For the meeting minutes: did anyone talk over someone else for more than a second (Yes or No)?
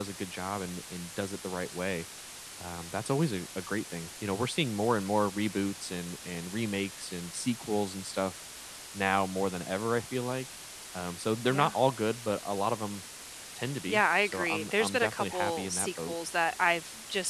Yes